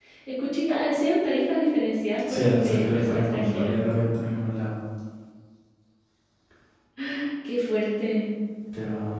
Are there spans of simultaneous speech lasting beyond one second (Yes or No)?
Yes